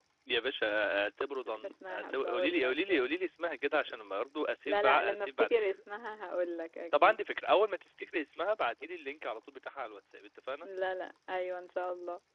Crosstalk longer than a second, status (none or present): present